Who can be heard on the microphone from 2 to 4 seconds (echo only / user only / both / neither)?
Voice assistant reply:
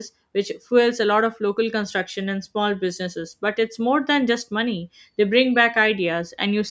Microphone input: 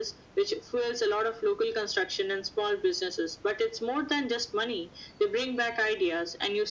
echo only